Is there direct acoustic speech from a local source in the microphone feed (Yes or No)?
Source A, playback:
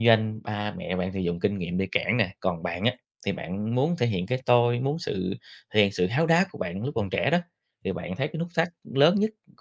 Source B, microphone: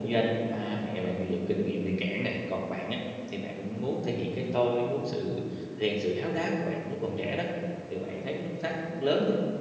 No